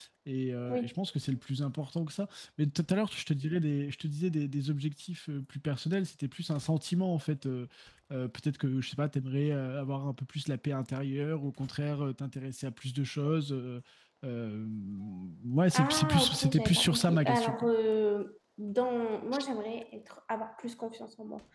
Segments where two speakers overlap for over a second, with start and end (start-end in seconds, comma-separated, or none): 15.7-17.7